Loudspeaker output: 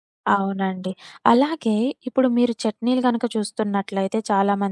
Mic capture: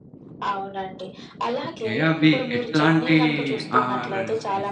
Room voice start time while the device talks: 1.6 s

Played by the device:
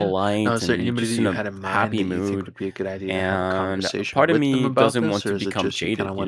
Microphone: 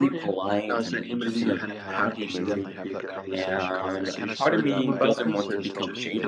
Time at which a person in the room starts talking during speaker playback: 1.3 s

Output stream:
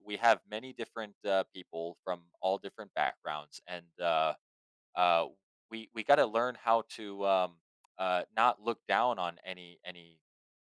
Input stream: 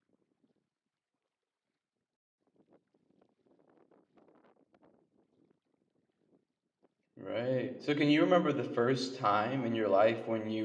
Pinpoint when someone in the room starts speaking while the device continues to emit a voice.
7.2 s

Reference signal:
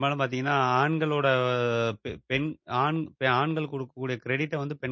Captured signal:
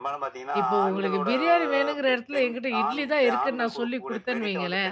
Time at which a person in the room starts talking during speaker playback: 0.6 s

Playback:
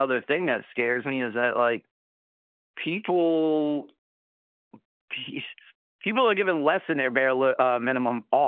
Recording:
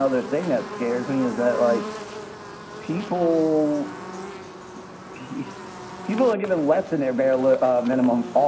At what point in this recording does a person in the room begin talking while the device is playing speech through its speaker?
none

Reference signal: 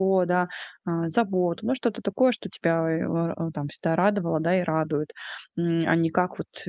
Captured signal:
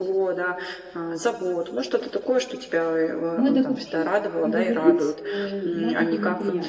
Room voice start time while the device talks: 3.3 s

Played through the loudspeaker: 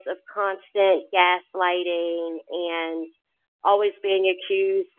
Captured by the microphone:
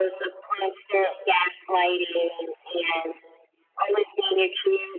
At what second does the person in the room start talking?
none

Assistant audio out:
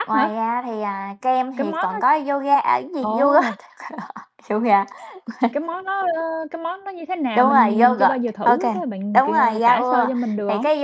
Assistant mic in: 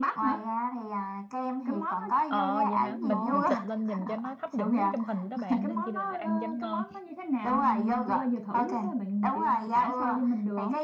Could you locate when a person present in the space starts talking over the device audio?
2.3 s

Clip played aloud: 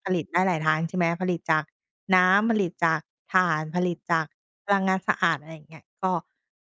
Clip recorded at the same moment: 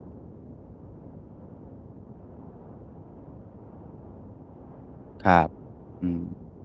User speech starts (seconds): 5.2 s

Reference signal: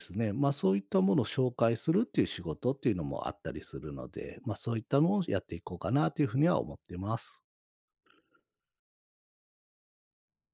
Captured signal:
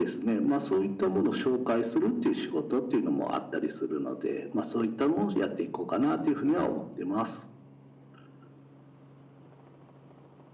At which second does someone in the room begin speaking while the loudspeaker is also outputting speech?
none

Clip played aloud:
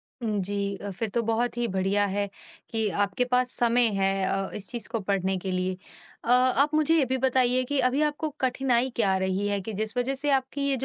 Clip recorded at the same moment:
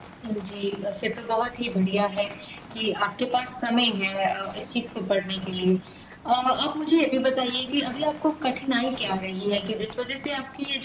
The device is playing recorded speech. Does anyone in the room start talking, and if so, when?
none

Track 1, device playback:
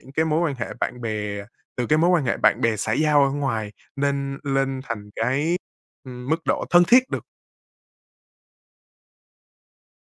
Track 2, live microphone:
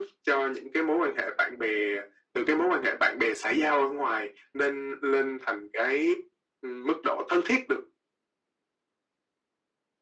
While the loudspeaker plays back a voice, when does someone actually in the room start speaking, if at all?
none

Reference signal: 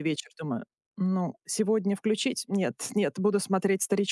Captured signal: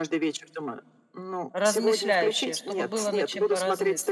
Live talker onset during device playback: 1.5 s

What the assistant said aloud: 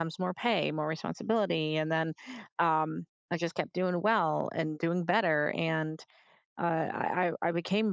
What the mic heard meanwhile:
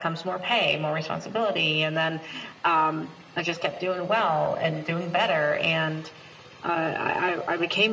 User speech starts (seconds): none

